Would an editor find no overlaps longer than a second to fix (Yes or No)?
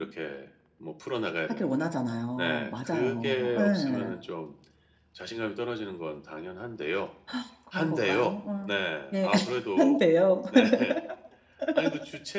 No